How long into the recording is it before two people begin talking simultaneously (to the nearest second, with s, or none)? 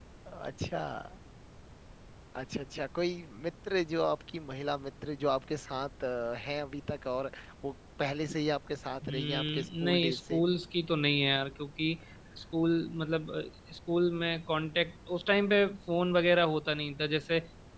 9 s